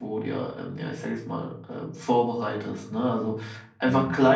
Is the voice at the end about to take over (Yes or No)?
No